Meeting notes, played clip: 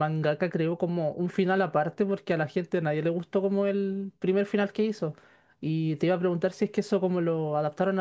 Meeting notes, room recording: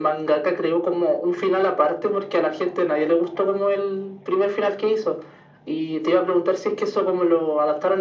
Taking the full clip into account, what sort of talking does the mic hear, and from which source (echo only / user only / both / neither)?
echo only